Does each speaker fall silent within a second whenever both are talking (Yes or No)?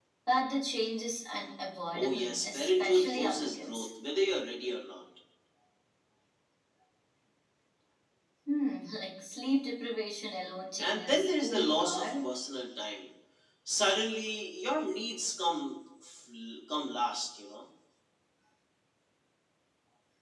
No